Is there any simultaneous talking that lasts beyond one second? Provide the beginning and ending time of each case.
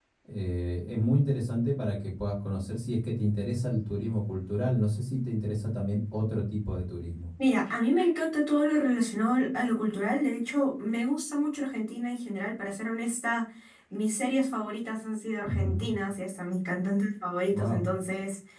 none

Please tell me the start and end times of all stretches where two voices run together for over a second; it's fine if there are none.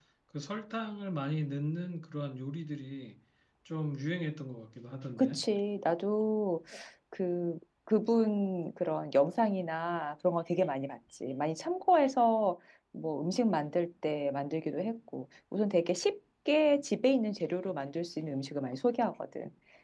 none

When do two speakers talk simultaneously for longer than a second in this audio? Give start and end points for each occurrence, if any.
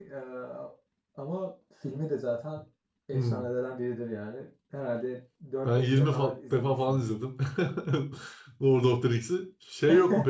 5.6-7.0

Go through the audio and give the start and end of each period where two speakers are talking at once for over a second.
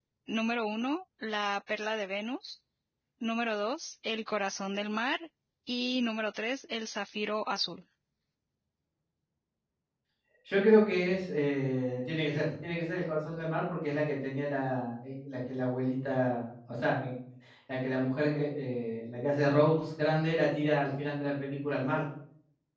none

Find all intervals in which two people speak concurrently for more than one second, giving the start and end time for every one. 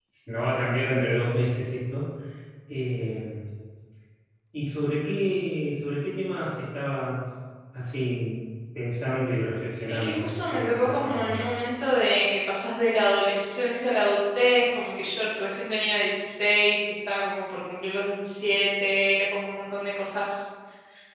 9.9-11.4

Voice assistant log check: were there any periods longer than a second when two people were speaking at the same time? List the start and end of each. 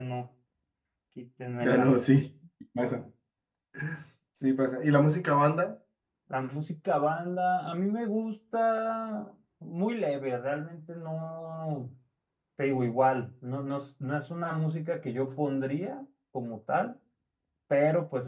none

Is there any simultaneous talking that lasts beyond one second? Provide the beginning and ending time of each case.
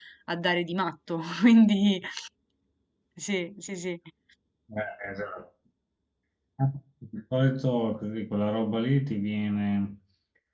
none

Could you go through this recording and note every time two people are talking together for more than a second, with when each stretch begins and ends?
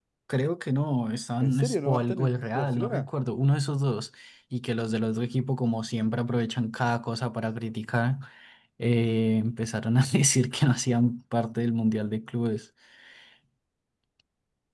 1.4-3.1

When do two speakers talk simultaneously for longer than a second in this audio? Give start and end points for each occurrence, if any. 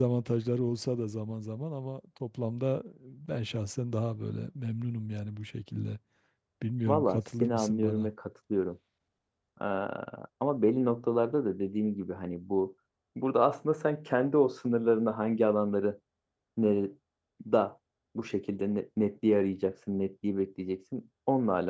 6.9-8.1

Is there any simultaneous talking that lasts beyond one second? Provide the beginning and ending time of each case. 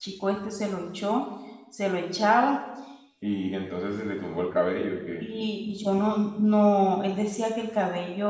none

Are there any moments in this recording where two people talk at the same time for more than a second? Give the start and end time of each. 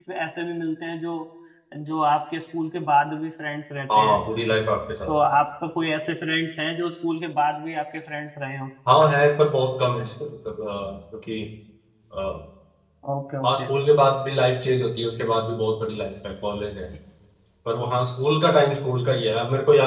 none

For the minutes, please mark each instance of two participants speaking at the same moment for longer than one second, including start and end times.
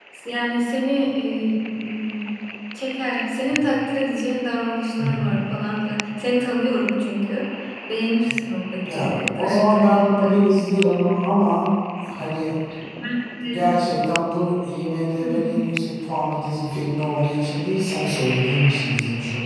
8.8-10.4

